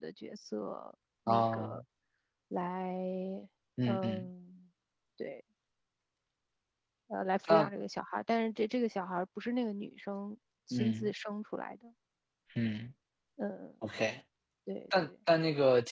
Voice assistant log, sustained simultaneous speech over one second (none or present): none